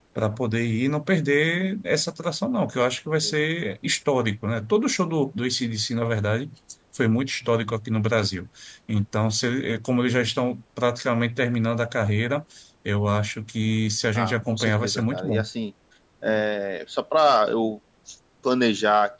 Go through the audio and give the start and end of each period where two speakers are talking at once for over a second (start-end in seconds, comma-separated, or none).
14.2-15.4